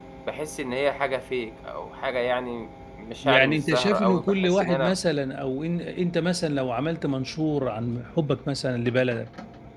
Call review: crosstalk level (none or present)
present